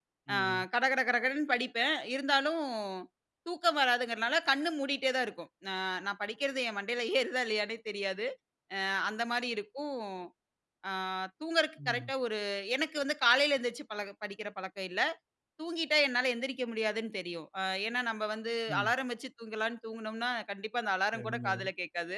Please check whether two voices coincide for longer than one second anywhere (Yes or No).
No